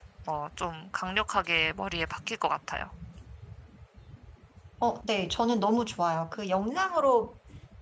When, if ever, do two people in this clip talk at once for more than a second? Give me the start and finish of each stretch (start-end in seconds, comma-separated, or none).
none